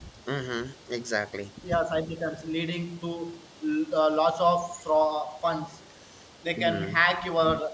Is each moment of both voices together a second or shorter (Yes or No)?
Yes